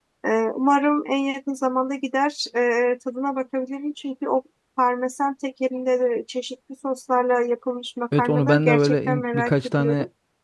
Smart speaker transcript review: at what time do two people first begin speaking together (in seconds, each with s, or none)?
8.1 s